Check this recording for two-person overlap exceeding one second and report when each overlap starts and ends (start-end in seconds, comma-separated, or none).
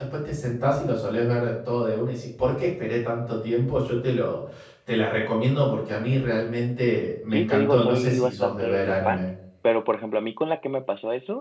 7.3-9.3